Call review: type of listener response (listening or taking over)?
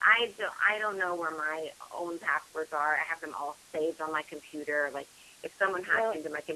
listening